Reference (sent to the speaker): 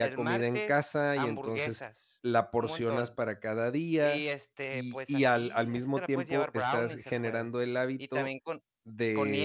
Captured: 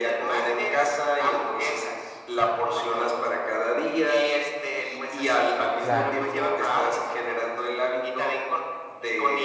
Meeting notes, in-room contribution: present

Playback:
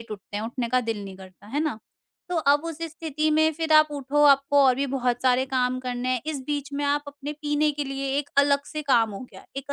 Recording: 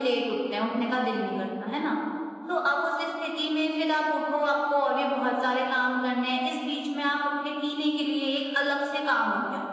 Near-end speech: none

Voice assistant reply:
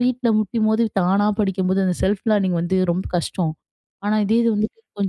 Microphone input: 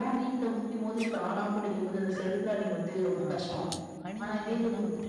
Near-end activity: present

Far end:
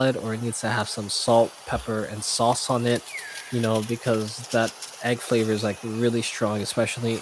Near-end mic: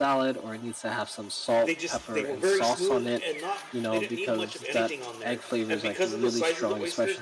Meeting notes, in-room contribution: present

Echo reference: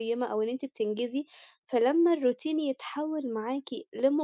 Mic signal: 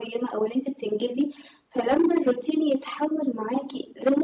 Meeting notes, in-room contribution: none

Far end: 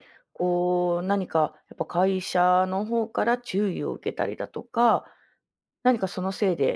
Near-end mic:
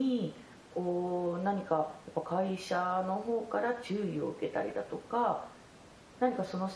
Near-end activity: none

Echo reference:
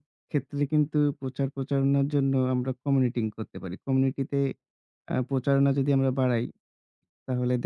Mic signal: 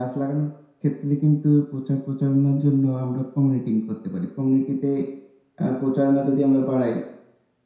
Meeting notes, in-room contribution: none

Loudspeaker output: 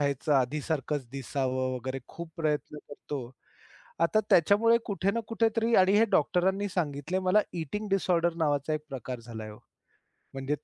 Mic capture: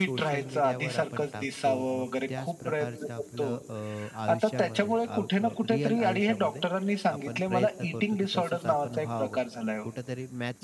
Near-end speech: present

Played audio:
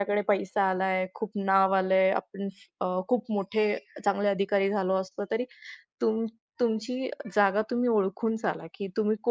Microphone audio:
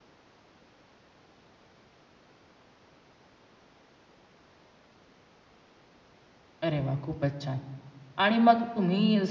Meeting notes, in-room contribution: present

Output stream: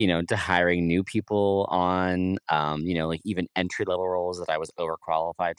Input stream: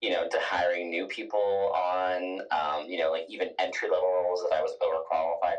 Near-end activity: none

